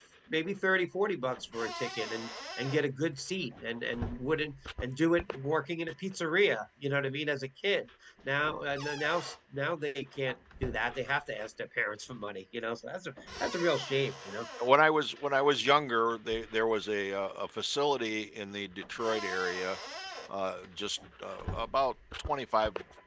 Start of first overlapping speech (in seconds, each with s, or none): none